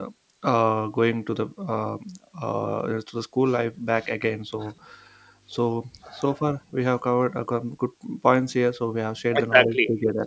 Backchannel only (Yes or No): No